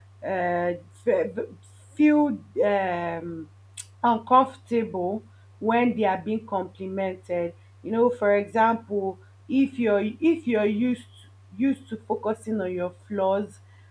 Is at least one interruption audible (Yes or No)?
No